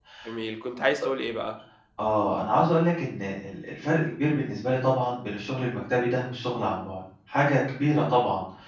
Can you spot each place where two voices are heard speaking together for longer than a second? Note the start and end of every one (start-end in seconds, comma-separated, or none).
none